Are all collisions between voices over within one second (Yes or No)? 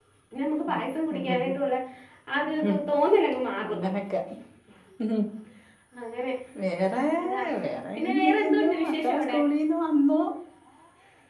No